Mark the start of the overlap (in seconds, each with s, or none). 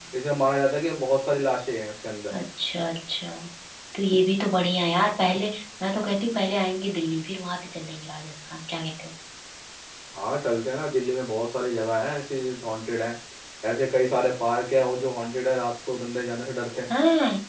none